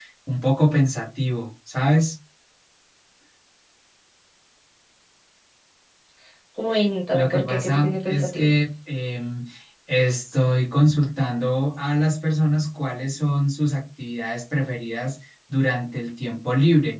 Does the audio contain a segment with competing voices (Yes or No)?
Yes